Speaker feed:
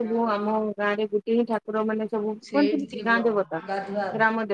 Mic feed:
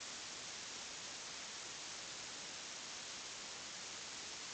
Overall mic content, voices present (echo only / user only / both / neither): neither